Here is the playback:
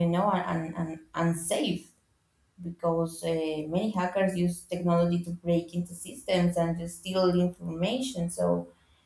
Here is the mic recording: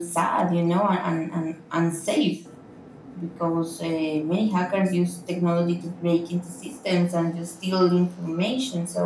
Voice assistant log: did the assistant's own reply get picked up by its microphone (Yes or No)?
Yes